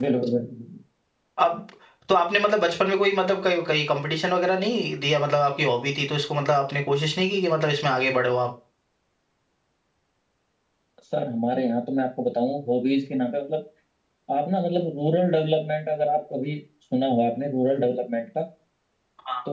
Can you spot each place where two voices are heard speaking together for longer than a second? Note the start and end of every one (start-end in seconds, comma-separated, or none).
none